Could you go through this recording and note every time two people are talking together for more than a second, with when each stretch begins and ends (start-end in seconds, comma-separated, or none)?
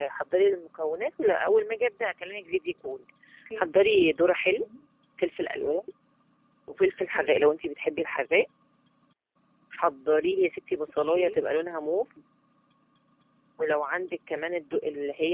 none